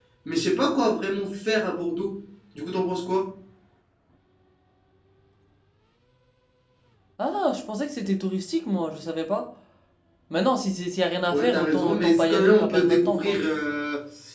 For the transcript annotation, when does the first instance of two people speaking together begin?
11.3 s

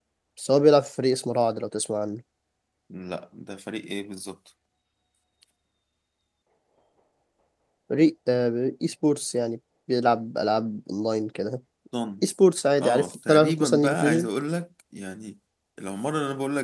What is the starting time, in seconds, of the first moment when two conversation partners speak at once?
12.8 s

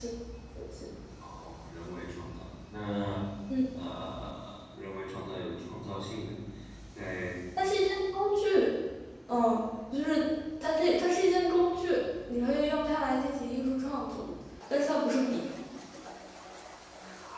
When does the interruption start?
none

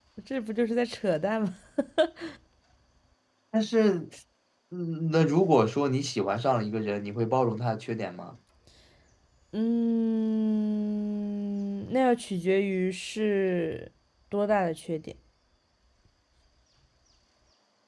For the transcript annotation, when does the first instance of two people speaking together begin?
none

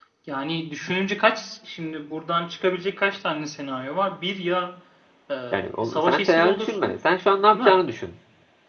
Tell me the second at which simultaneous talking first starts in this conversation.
5.8 s

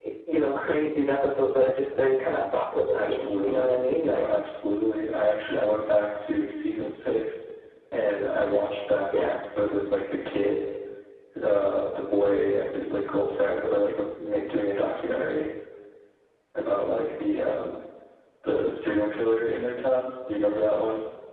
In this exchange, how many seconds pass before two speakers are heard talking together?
2.9 s

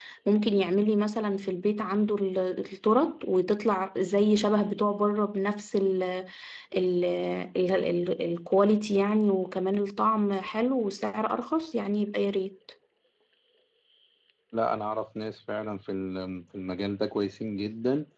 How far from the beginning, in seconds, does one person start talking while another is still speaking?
none

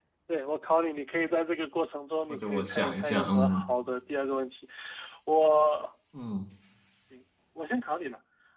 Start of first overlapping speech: 2.3 s

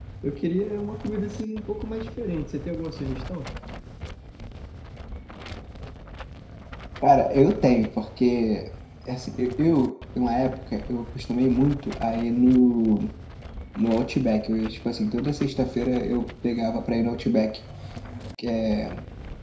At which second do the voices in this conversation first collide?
none

